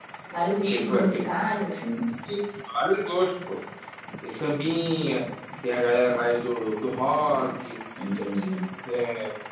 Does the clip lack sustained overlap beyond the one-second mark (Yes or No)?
Yes